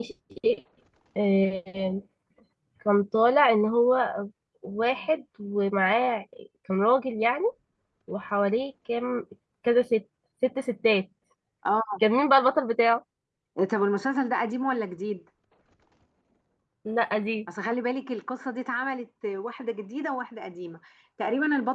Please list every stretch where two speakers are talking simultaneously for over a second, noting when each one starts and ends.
none

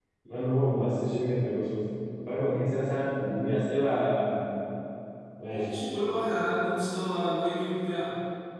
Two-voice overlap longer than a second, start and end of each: none

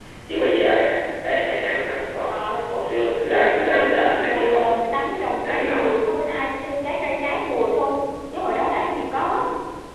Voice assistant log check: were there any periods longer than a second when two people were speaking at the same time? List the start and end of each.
3.3-4.8

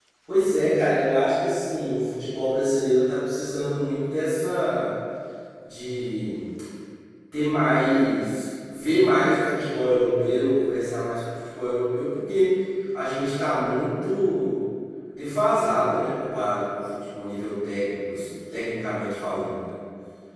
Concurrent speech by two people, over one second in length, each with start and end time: none

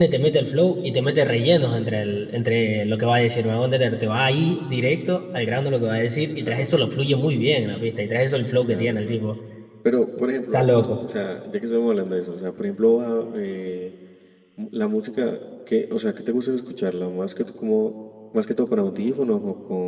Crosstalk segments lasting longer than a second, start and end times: none

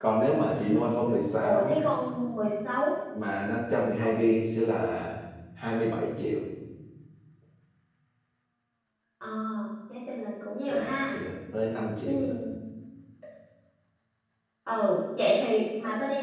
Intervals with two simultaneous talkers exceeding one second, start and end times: 0.5-1.8

